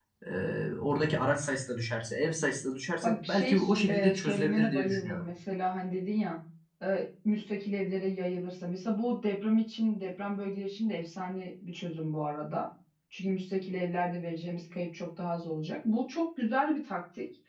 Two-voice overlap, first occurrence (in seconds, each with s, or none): 3.0 s